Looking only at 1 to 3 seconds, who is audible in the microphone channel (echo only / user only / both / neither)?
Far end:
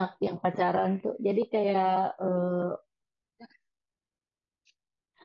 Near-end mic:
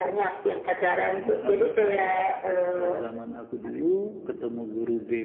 both